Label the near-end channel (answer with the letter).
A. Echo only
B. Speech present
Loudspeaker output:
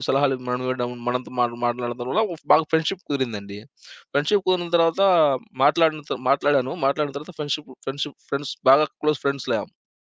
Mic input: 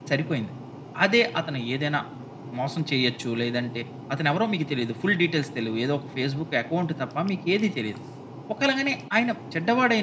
B